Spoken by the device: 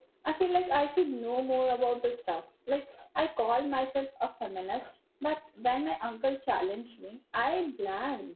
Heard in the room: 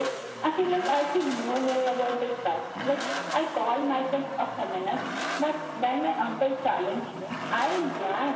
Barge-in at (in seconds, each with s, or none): none